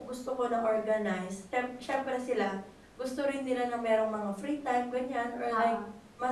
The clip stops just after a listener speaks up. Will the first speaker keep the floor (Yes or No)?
Yes